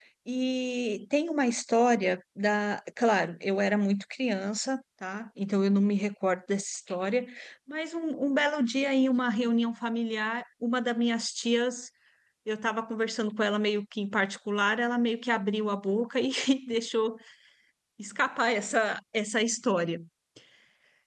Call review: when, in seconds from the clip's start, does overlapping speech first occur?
none

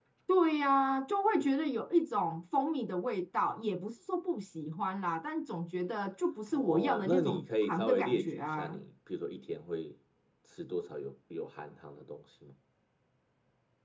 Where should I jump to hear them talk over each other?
6.5 s

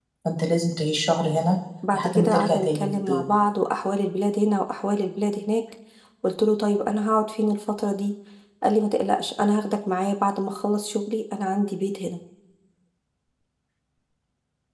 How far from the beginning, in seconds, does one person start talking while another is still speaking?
1.9 s

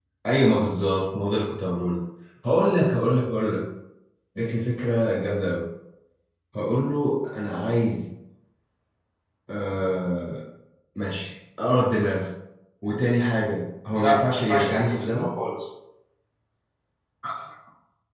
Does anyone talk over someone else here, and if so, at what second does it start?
14.0 s

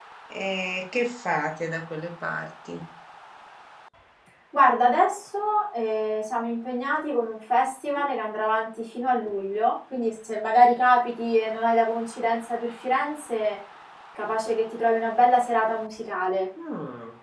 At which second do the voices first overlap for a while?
none

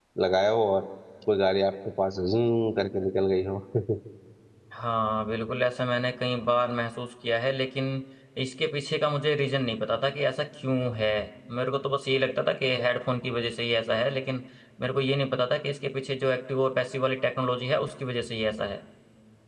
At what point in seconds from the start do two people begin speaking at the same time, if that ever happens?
none

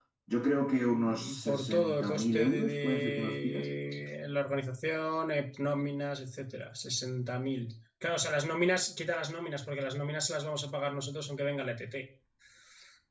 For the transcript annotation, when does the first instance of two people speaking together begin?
0.8 s

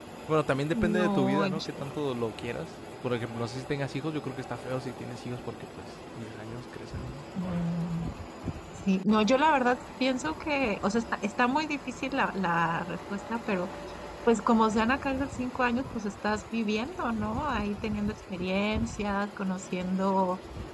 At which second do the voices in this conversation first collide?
0.7 s

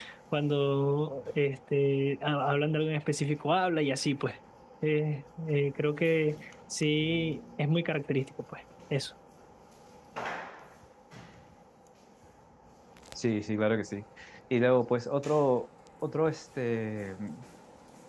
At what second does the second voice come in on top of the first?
none

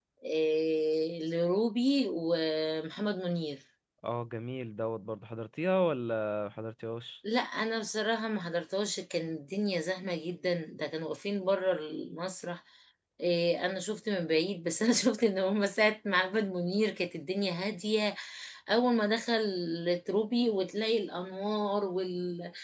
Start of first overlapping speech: none

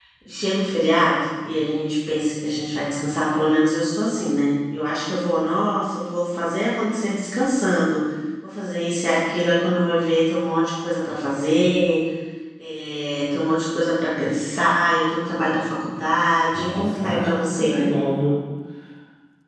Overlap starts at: 16.5 s

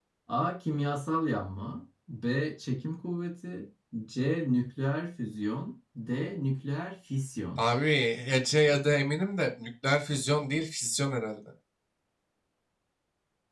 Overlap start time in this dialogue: none

